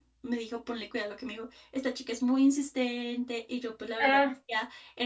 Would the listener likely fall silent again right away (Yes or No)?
Yes